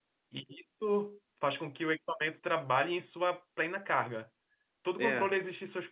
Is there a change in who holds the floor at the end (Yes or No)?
No